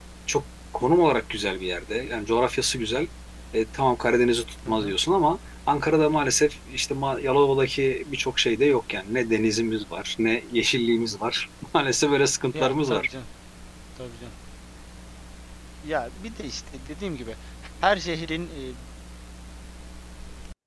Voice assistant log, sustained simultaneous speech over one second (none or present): none